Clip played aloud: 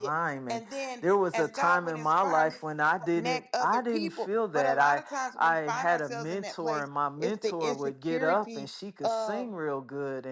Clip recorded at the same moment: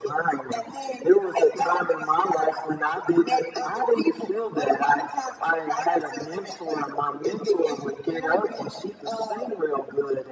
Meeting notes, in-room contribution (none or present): none